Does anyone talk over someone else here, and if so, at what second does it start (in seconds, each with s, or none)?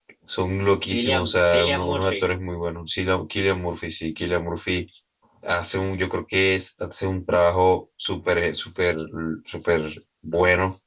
0.8 s